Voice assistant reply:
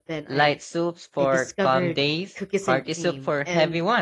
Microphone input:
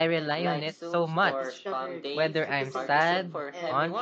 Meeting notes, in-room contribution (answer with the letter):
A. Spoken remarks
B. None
A